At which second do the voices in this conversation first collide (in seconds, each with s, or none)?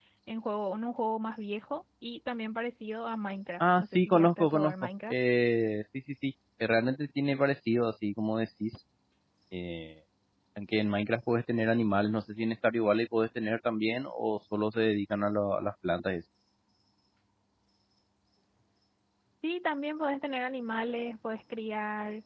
3.6 s